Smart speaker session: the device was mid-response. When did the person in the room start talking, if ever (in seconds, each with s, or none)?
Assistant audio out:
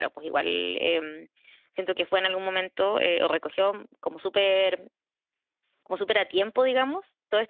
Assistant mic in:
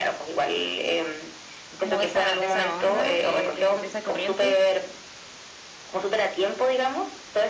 1.8 s